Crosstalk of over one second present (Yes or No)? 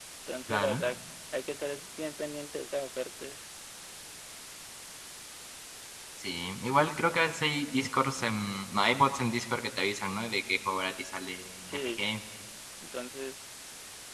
No